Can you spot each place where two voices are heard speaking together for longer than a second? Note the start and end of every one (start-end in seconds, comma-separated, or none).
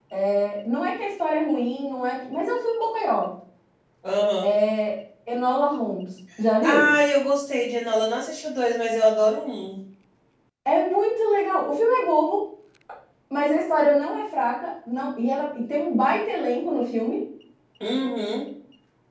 none